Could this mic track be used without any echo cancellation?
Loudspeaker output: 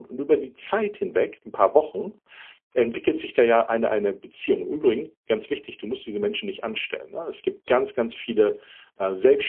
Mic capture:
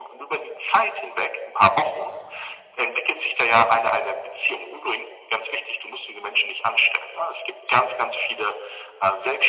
No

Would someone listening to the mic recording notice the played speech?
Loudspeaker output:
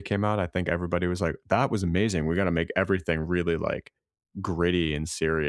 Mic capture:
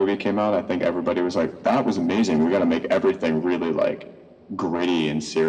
Yes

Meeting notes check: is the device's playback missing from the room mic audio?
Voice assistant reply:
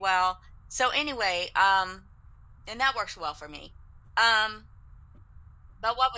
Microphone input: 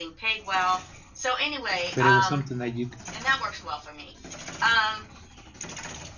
No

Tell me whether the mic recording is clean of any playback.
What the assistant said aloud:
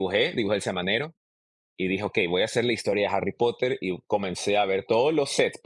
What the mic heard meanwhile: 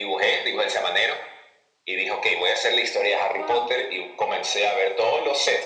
No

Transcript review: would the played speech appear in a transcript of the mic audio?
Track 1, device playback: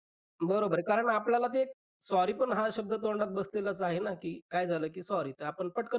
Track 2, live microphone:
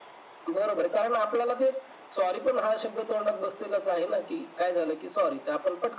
Yes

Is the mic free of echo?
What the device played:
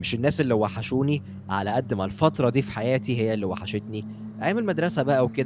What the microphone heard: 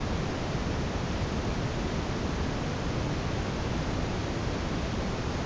Yes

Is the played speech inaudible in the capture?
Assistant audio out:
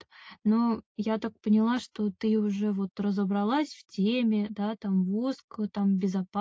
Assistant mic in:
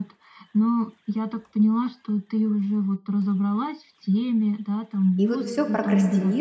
No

